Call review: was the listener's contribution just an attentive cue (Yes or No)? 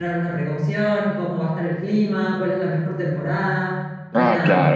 No